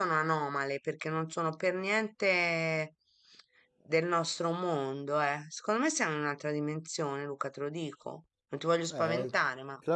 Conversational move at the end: taking over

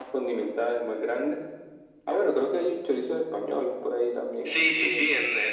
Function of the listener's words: taking over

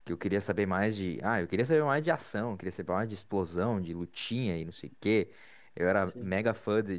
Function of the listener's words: listening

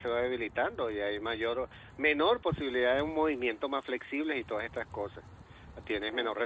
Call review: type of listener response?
listening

